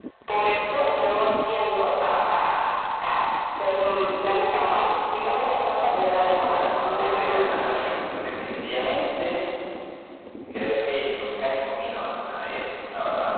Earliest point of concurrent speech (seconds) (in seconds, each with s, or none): 6.3 s